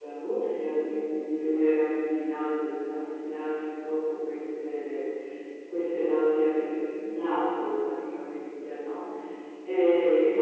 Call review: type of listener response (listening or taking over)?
listening